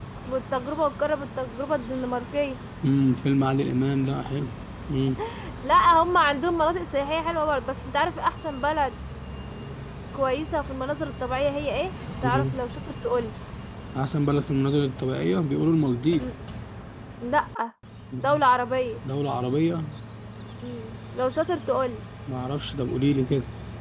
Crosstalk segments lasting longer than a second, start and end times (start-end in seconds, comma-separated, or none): none